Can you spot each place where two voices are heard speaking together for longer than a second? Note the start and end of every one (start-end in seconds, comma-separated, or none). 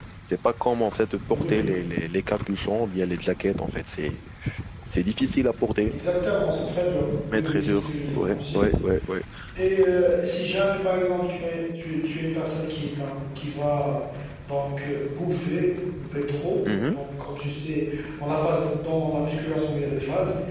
7.3-8.6